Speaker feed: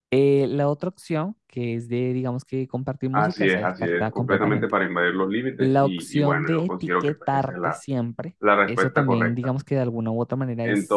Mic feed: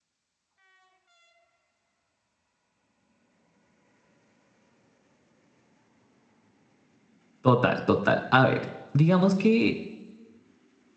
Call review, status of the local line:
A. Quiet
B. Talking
B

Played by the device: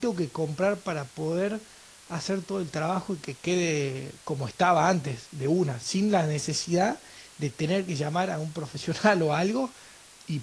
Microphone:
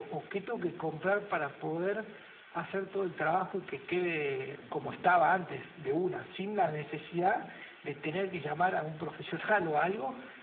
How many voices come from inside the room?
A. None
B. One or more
B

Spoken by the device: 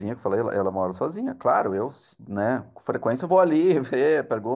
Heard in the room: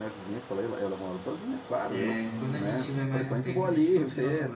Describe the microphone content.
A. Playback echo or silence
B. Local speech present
B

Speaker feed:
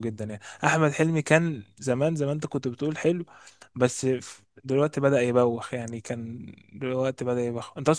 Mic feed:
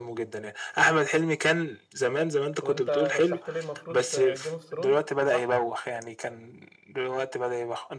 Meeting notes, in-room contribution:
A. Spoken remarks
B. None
A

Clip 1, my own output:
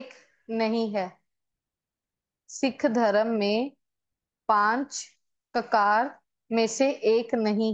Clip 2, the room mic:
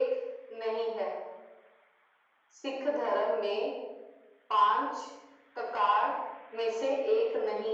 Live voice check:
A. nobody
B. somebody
A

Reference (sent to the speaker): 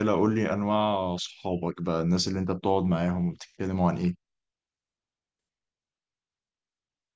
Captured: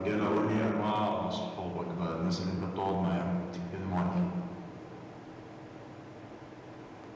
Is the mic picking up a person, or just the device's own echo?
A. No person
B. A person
A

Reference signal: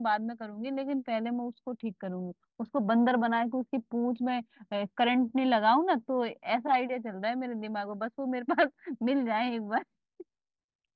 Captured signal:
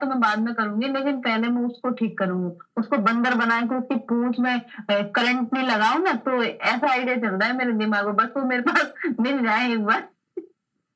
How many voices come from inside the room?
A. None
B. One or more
A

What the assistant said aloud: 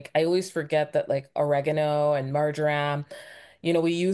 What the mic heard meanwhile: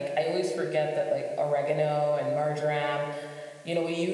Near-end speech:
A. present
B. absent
B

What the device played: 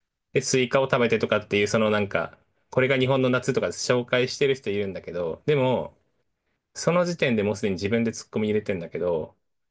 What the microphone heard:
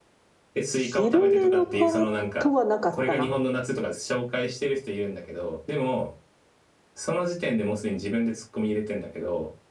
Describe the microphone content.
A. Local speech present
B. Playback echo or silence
A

